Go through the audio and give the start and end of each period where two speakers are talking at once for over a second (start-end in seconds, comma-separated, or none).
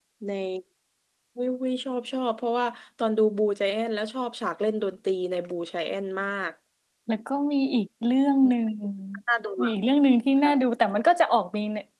none